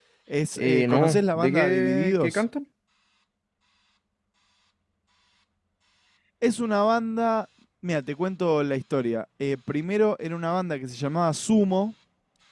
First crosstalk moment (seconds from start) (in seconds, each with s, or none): 0.6 s